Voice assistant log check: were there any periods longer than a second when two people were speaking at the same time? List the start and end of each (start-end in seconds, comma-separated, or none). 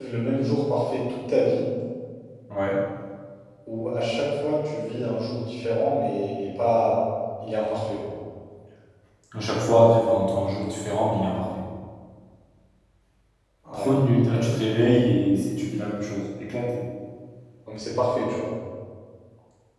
none